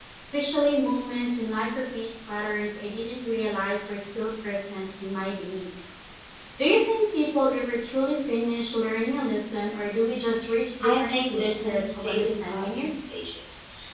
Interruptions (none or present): present